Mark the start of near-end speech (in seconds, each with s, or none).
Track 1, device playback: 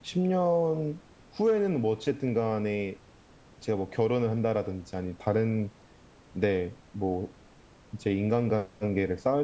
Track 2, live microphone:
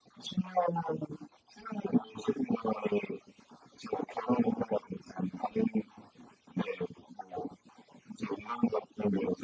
none